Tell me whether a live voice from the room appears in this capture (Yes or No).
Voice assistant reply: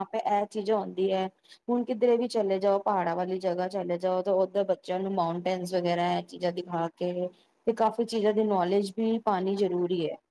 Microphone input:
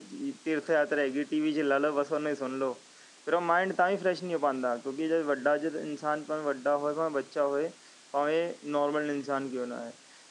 Yes